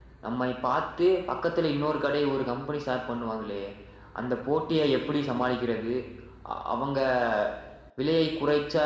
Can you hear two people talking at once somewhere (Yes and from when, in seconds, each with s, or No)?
No